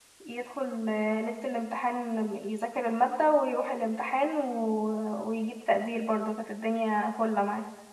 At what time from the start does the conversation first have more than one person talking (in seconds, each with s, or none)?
none